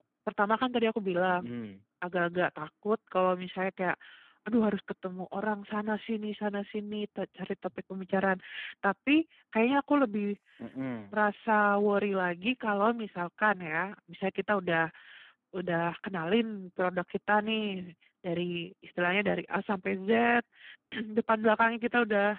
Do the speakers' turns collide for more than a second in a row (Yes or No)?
No